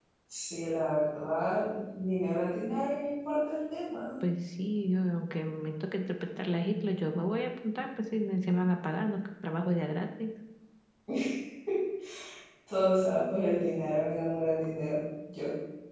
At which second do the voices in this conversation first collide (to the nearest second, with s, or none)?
none